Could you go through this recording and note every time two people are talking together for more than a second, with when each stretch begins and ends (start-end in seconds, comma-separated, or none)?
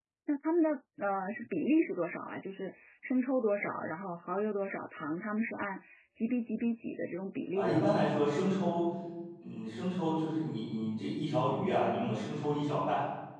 none